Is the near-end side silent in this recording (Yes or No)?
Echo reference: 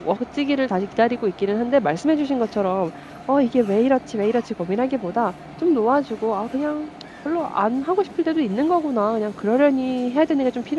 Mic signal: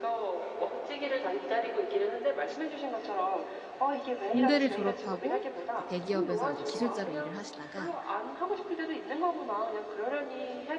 No